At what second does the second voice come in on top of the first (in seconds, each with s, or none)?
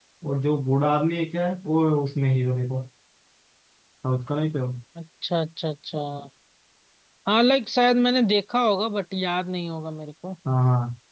none